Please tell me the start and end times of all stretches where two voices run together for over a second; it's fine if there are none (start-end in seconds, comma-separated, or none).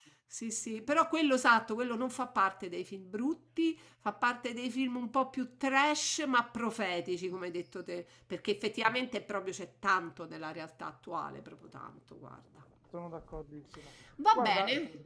none